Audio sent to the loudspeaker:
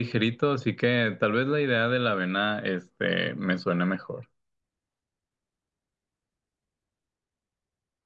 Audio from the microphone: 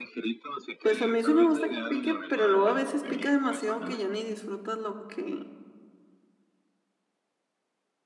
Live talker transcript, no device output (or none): pues a mí sí me gusta que pique, pero luego a veces pica demasiado que ya ni disfrutas lo que,